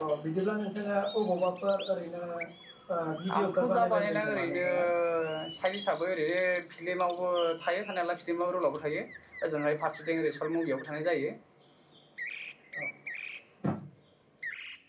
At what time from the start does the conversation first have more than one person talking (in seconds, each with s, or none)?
3.4 s